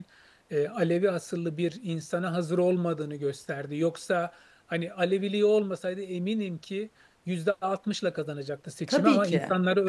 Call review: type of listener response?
listening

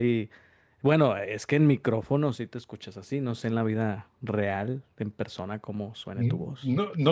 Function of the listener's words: taking over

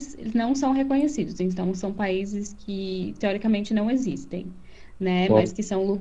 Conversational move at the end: listening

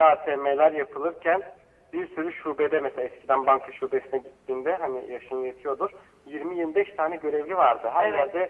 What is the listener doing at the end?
listening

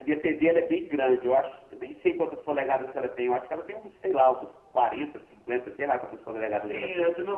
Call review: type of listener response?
taking over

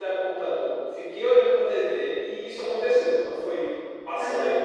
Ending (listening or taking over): taking over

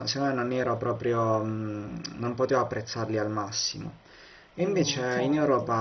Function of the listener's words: listening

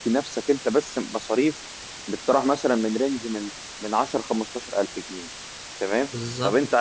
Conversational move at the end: listening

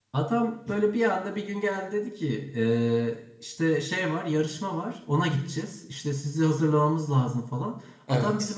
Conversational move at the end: listening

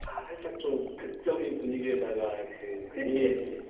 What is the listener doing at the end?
listening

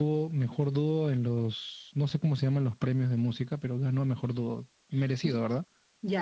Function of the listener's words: taking over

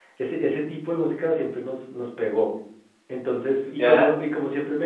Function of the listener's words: listening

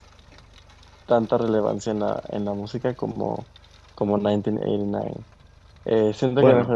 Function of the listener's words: listening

